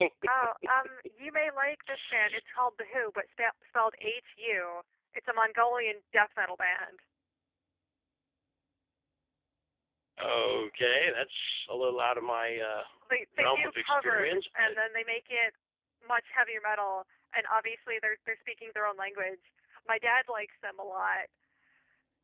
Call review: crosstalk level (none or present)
present